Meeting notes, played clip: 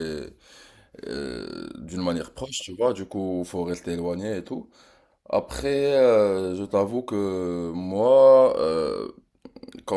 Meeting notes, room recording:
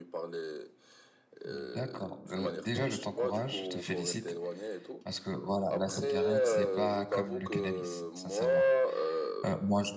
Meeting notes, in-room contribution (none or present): present